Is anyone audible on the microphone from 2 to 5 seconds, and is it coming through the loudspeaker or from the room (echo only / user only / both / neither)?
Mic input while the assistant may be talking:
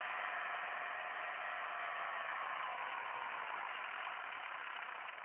neither